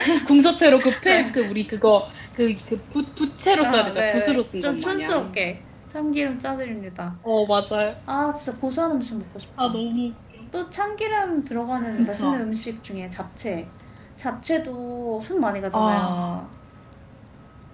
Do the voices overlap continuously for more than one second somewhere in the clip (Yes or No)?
Yes